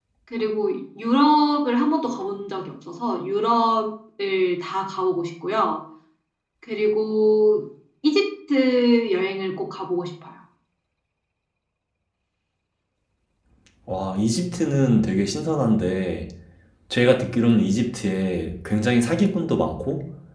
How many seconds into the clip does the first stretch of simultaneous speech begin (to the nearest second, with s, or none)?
none